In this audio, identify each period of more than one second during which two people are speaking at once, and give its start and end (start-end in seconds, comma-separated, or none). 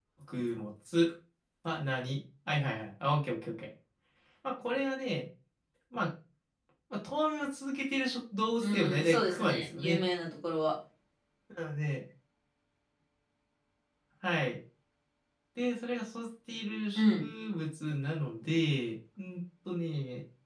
8.6-10.0